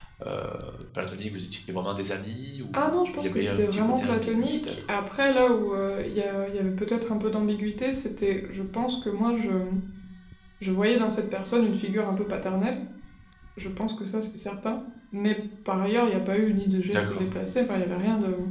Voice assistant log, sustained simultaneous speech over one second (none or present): present